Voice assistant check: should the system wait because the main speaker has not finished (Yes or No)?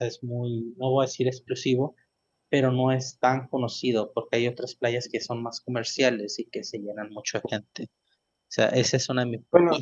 Yes